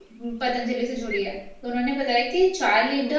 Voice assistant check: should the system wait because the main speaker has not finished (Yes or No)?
Yes